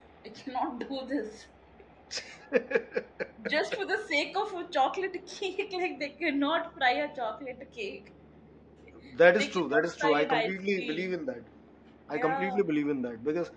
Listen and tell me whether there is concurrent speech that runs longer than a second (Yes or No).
Yes